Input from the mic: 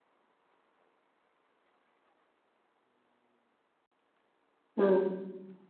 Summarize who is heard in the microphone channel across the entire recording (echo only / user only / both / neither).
user only